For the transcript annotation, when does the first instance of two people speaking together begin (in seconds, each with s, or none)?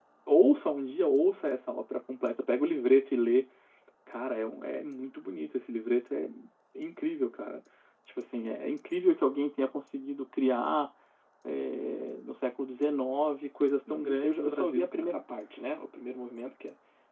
13.9 s